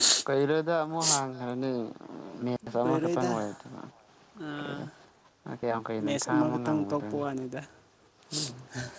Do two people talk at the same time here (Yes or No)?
Yes